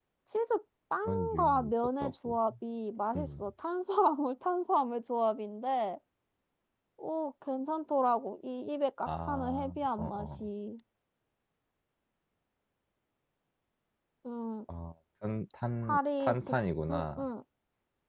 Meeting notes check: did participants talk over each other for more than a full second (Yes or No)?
Yes